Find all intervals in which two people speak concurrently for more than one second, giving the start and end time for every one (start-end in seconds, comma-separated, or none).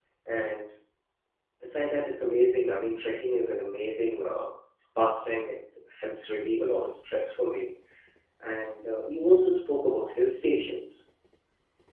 none